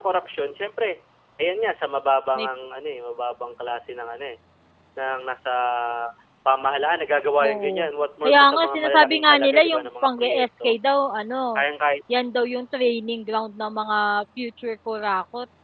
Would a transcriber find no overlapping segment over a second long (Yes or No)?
No